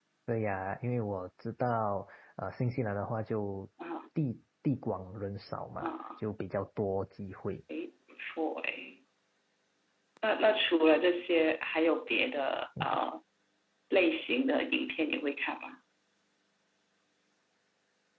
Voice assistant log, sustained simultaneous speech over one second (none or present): none